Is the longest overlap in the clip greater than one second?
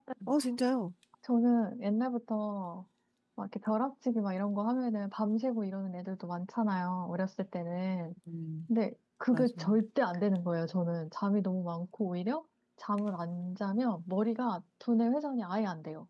No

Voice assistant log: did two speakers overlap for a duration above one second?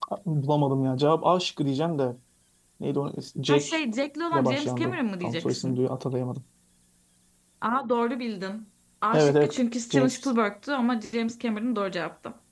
Yes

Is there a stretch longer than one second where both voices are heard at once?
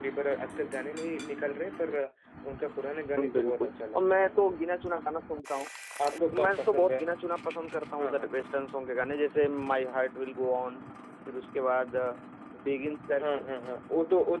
Yes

